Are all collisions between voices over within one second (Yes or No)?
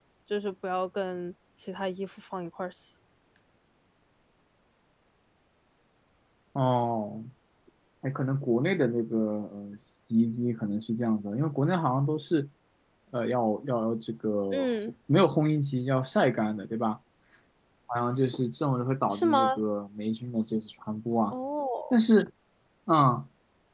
Yes